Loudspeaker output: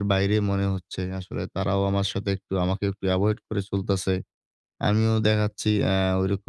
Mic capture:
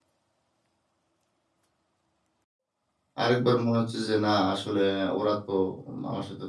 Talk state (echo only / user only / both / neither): user only